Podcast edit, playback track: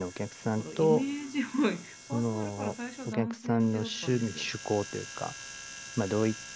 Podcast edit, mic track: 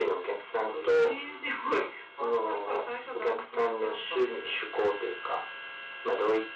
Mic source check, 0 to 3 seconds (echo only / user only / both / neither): echo only